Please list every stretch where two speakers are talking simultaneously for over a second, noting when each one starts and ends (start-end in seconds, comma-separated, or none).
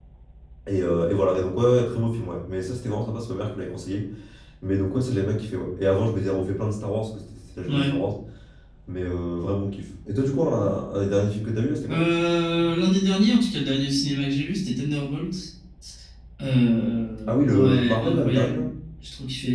17.3-18.7